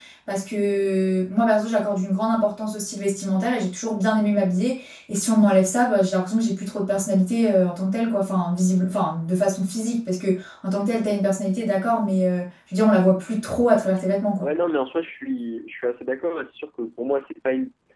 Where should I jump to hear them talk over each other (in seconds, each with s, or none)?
none